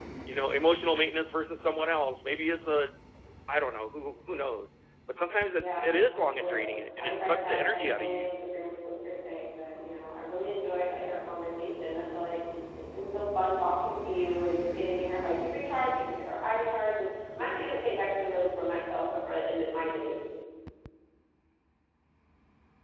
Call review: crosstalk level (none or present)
present